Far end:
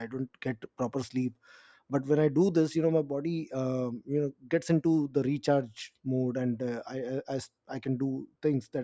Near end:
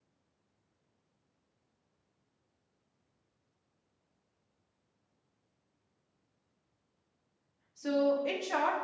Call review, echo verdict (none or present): none